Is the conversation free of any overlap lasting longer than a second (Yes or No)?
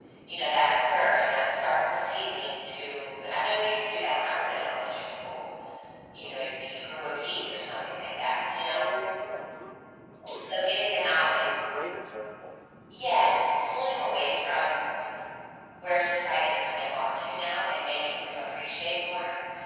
Yes